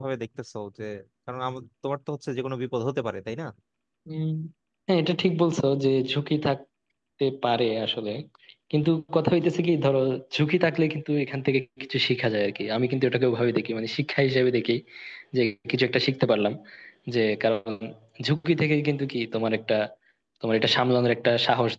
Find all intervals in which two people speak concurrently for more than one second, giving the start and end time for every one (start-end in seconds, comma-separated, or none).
none